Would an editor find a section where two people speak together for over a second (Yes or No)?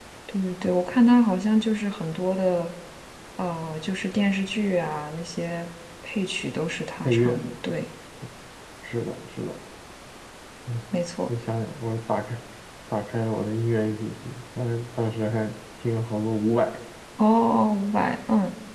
No